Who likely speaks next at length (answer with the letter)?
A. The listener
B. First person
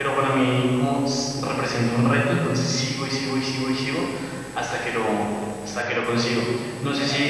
B